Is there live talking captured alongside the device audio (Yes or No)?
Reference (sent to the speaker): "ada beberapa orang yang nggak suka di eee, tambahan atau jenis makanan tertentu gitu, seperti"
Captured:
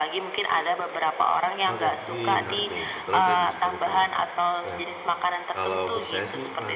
Yes